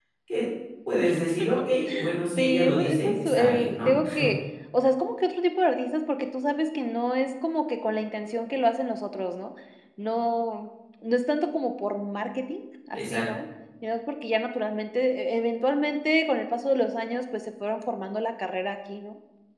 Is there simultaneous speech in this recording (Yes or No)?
Yes